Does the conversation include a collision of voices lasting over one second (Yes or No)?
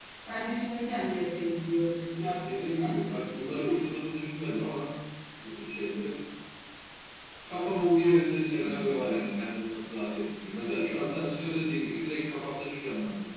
Yes